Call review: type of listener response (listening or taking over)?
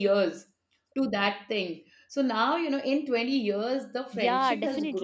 taking over